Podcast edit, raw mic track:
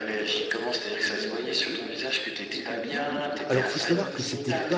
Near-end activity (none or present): present